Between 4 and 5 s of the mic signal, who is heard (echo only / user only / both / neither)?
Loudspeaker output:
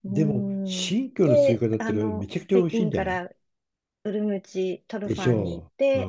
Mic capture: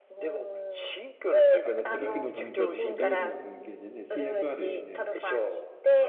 both